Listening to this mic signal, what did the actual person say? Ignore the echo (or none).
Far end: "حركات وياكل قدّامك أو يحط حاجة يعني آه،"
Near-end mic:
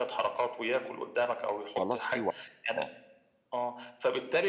خلاص في وعي، آه،